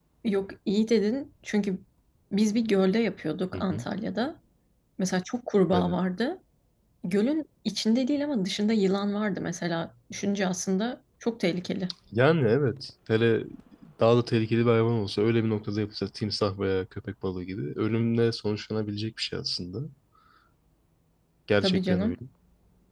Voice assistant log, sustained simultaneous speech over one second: none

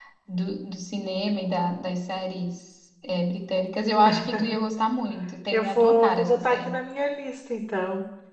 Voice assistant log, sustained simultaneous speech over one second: present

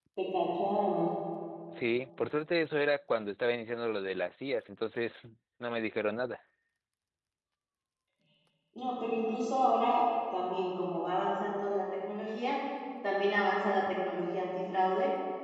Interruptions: none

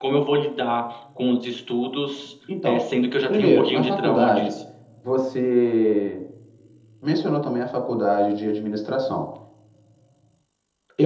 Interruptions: present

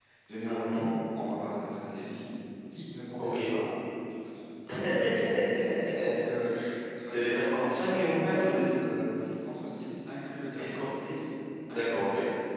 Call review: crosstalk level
present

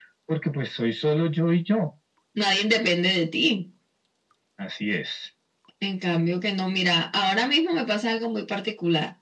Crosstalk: none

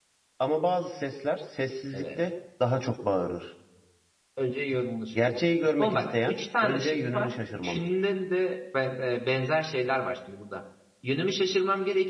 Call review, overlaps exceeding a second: present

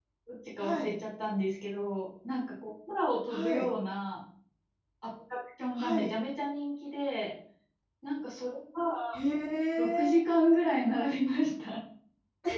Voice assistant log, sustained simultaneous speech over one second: none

